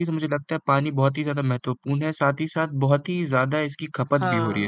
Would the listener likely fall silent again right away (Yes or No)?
No